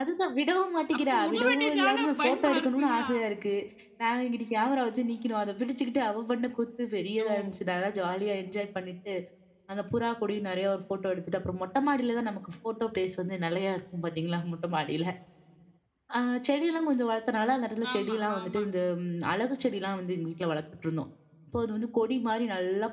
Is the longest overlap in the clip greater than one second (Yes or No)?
Yes